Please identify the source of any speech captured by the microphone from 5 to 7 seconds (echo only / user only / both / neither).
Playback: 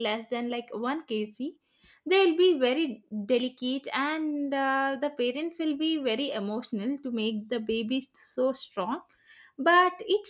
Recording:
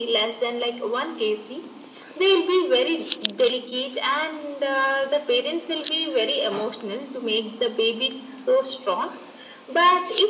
echo only